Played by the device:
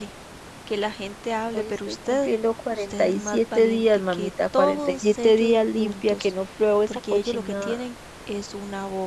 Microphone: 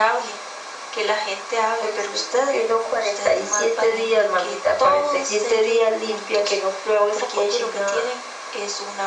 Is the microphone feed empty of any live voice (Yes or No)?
Yes